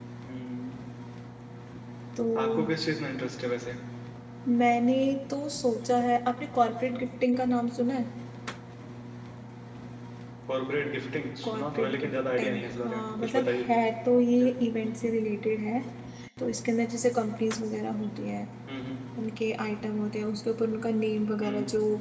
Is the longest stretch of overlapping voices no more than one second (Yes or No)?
No